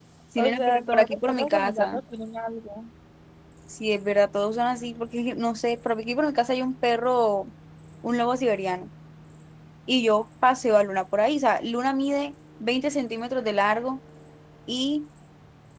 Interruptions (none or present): present